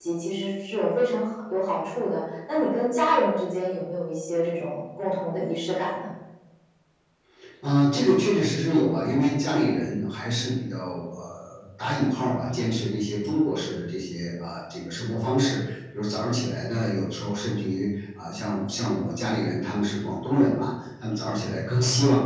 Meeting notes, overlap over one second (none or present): none